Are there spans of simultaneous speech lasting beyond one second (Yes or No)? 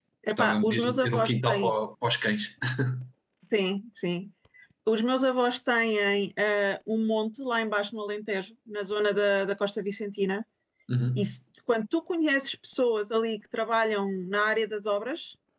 Yes